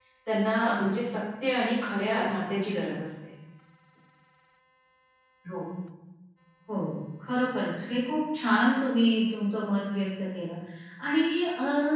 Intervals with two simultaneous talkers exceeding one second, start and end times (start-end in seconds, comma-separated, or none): none